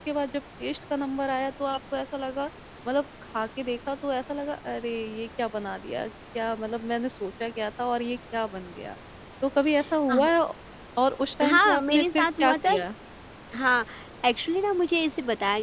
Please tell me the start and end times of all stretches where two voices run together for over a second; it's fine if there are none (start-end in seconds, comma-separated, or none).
11.4-12.7